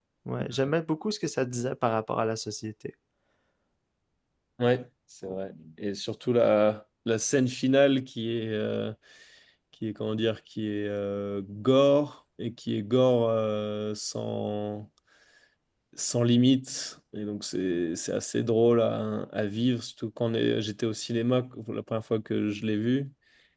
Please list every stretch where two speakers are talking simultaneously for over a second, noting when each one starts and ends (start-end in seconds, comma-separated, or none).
none